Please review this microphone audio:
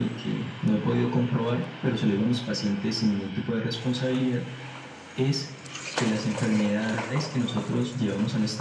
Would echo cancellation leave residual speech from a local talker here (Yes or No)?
No